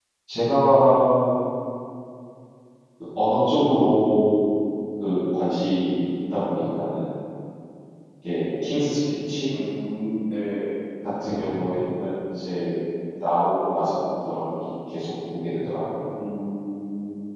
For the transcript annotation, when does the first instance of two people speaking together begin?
none

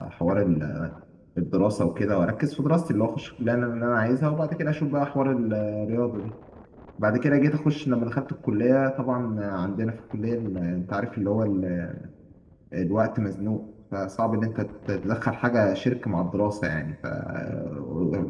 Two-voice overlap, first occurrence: none

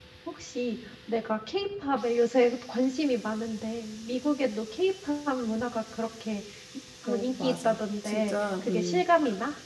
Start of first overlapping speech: 7.1 s

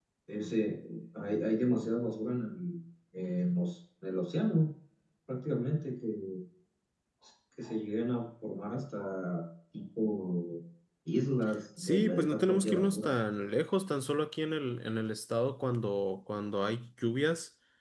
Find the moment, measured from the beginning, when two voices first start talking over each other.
11.8 s

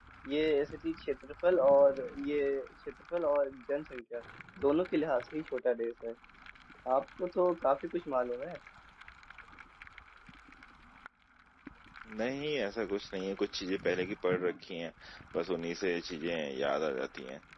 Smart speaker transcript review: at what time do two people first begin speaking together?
none

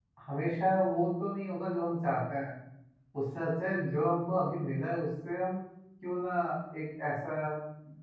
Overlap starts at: none

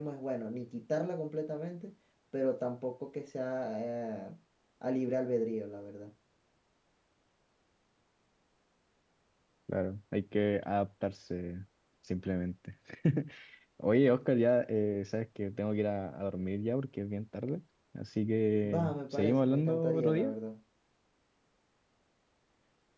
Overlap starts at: 18.6 s

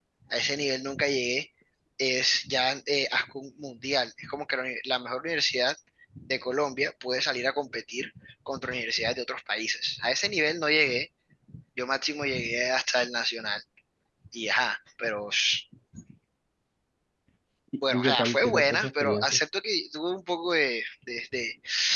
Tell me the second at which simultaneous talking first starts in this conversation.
17.9 s

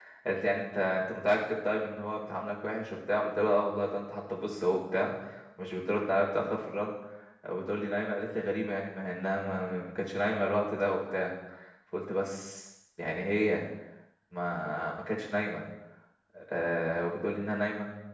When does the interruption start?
none

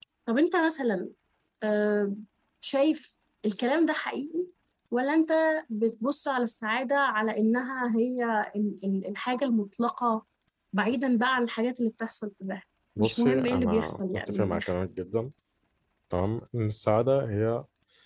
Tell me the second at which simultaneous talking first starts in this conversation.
13.0 s

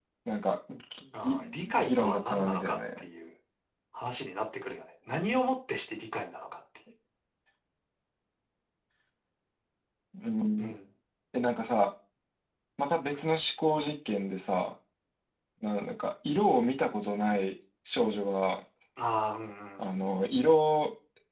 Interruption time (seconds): 1.2 s

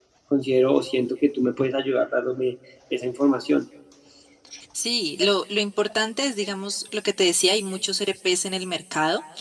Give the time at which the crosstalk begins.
none

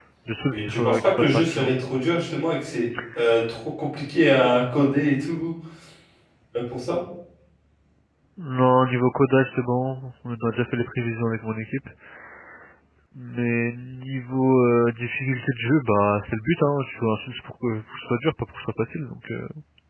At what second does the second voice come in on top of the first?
0.5 s

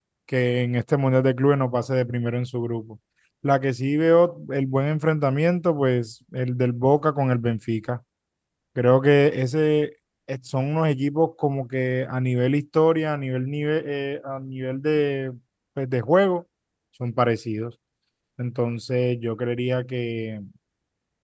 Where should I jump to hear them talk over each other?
none

